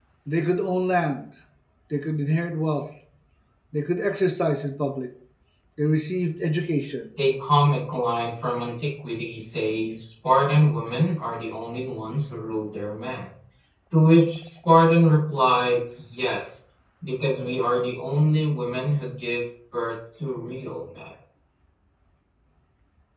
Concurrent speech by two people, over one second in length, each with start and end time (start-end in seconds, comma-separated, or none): none